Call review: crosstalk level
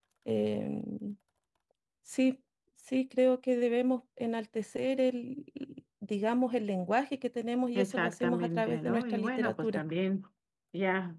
present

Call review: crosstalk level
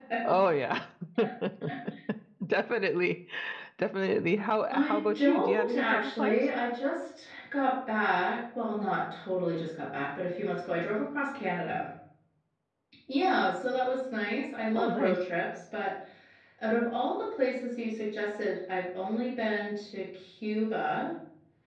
present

